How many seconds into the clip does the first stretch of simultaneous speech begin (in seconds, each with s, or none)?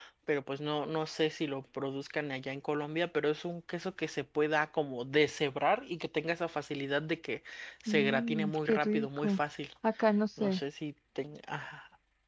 7.9 s